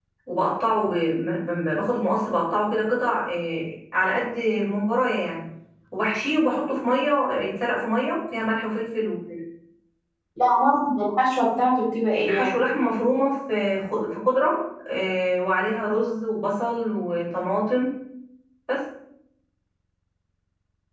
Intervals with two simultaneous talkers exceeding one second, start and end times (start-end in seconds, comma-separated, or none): none